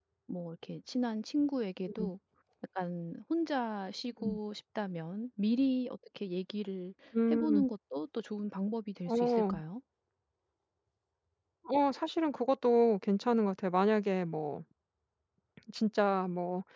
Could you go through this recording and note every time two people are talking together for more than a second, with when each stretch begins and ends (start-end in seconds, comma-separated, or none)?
none